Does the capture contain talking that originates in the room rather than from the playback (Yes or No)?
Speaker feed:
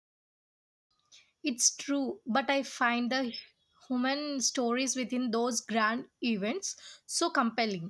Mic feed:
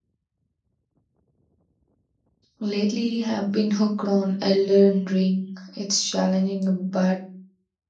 Yes